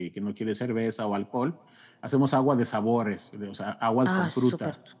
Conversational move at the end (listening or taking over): taking over